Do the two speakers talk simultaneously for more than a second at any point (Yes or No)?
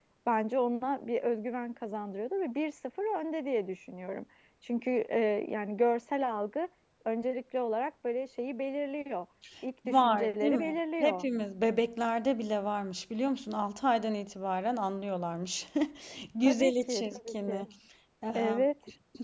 Yes